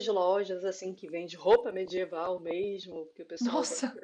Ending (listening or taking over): listening